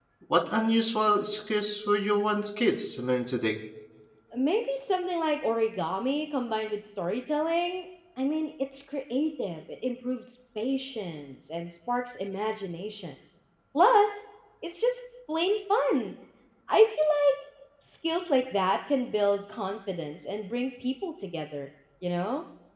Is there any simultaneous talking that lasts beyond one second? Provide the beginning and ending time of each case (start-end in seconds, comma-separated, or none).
none